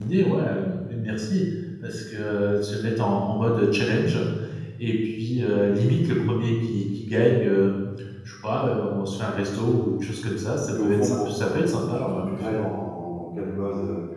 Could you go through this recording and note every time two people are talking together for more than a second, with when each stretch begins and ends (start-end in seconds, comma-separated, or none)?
10.7-12.6